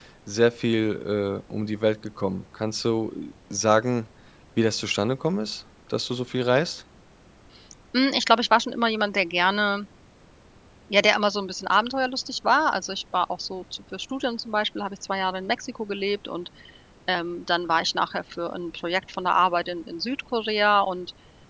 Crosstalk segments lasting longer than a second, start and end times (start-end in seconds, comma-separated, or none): none